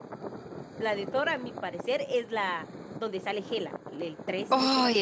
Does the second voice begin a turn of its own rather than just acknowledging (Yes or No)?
Yes